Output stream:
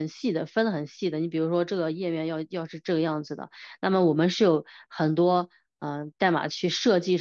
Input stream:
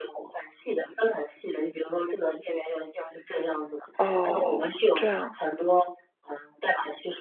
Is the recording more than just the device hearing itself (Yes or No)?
Yes